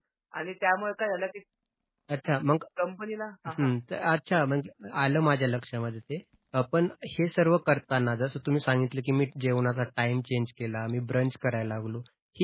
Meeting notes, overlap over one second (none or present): none